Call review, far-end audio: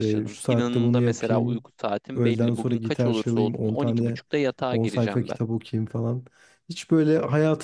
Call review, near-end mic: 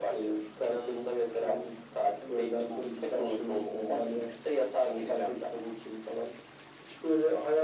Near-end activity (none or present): none